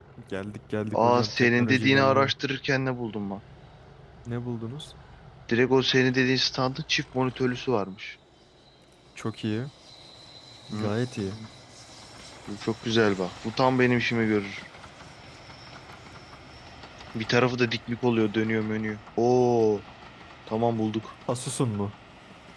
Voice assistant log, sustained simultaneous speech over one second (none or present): present